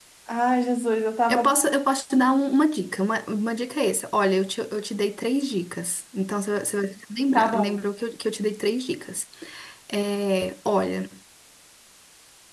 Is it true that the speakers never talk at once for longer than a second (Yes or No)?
Yes